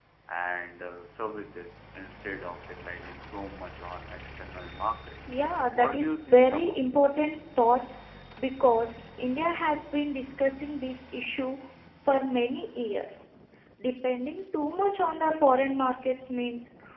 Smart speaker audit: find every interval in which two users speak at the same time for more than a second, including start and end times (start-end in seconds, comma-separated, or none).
5.8-7.2